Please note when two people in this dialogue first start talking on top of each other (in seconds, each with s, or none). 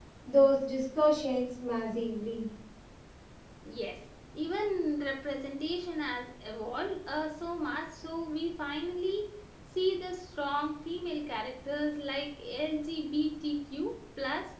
none